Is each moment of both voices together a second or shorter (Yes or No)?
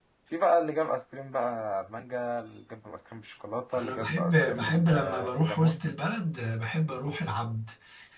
No